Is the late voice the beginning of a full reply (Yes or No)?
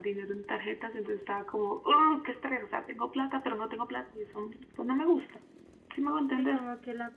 Yes